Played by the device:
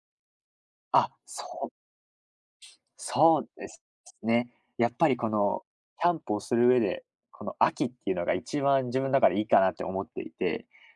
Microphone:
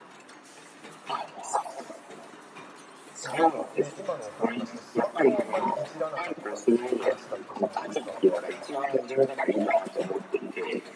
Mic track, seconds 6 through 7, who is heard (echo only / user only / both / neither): both